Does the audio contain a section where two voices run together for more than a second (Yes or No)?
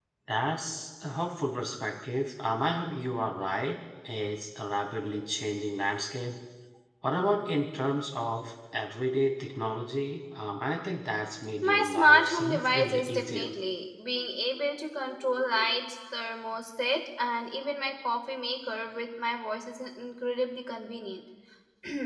Yes